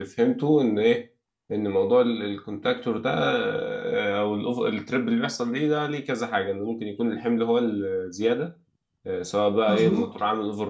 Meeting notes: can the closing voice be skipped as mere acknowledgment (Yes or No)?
Yes